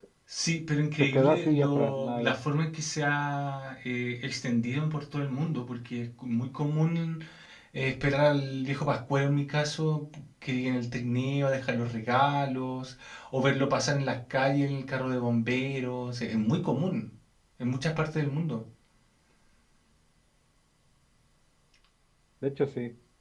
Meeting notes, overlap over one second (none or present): present